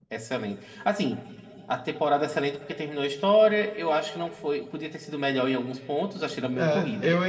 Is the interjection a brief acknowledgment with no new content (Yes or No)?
No